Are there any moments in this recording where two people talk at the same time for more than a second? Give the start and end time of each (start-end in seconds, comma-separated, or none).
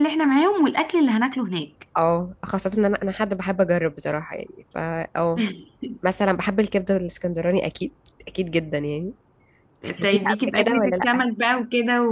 10.0-11.2